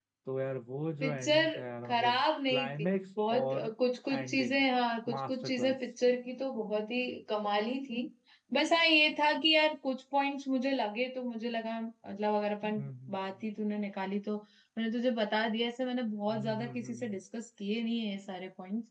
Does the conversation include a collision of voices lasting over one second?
Yes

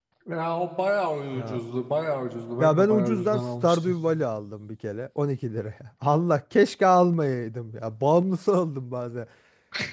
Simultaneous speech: Yes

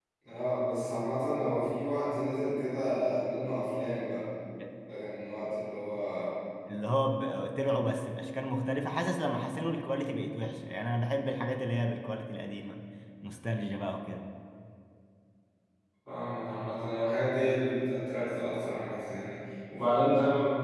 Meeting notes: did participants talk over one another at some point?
No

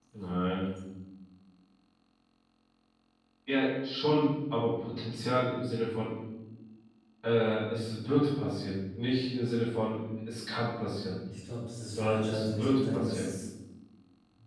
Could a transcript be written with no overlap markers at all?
No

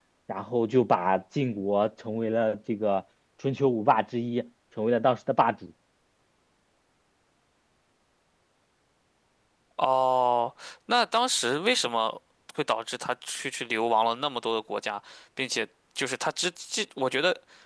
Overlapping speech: No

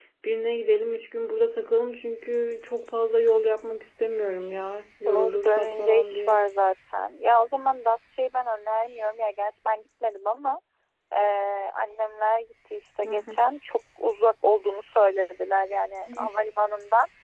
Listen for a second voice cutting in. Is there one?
Yes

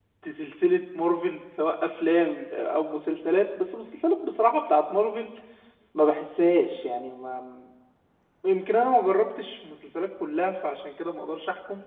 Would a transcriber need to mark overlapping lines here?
No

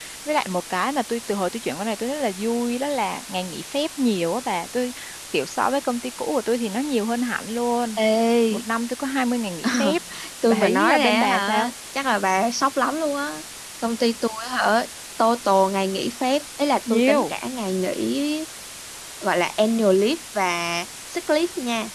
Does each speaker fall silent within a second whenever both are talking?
No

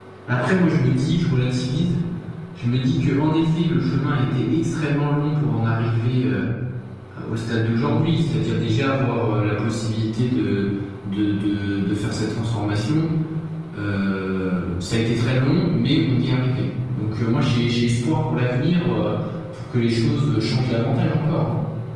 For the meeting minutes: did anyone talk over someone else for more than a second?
No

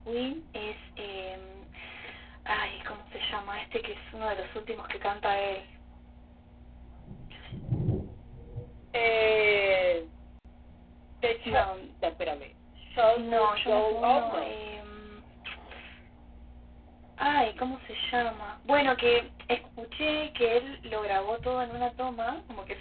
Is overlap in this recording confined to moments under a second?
No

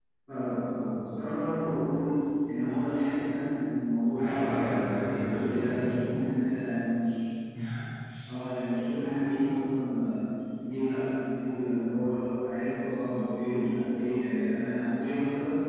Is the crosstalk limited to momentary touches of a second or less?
No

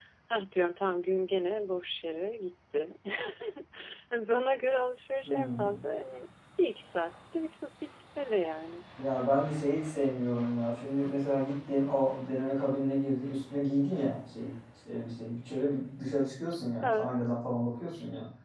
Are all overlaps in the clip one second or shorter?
Yes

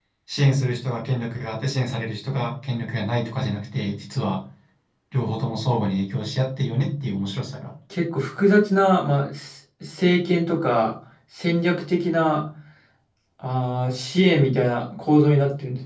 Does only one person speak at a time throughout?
Yes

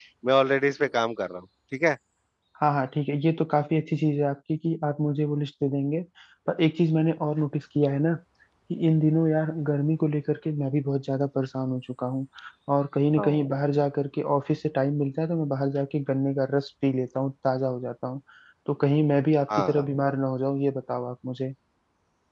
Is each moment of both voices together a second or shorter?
Yes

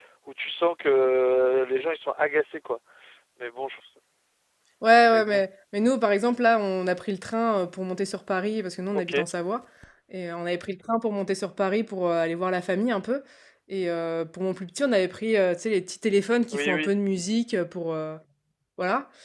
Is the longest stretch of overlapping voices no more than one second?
Yes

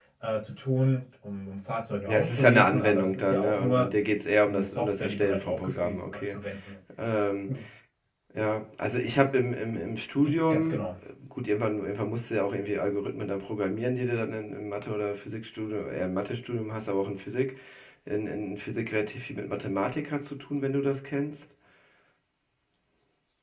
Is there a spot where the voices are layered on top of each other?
Yes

